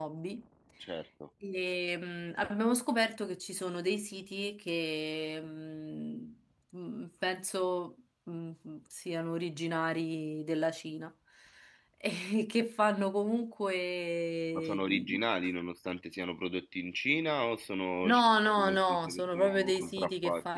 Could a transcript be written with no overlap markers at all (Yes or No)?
No